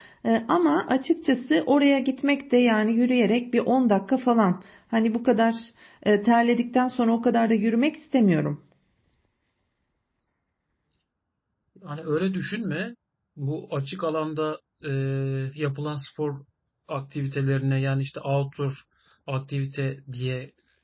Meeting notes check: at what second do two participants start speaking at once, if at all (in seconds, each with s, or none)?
none